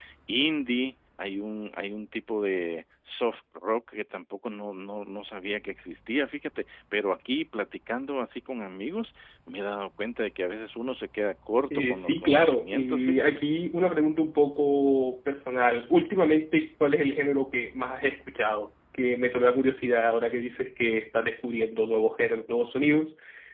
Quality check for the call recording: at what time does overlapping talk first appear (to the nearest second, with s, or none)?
12 s